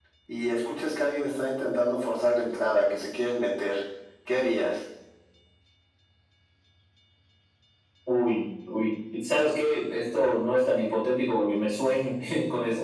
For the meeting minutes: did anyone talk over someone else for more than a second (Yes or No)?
No